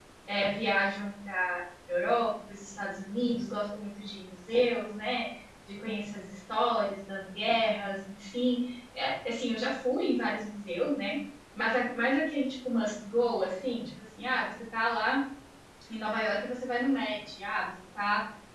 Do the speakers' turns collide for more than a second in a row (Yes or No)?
No